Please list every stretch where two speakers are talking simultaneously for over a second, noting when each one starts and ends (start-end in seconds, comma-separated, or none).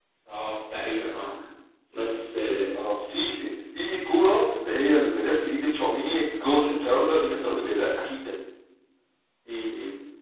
none